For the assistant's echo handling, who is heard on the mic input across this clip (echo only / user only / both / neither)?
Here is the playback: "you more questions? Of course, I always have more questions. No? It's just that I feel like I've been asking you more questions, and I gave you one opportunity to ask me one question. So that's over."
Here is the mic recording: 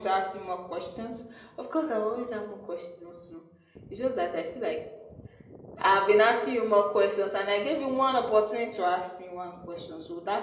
echo only